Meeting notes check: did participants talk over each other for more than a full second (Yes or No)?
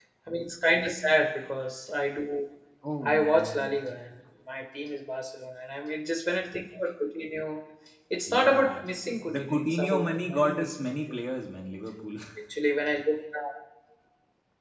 Yes